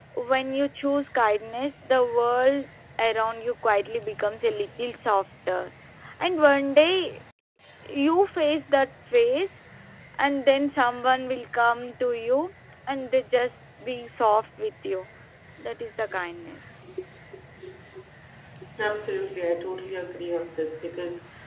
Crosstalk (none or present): none